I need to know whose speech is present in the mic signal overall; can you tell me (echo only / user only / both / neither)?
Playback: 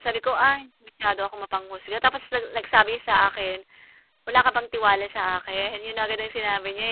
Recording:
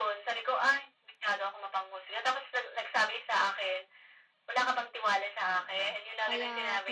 both